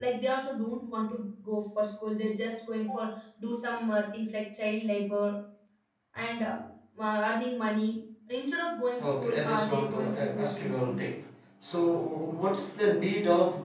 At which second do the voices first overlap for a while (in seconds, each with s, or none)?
9.0 s